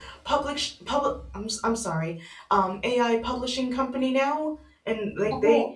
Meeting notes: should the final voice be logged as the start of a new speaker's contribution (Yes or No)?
No